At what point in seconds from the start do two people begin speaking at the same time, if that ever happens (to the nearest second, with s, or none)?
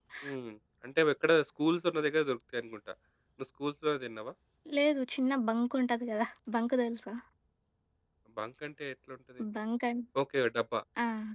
none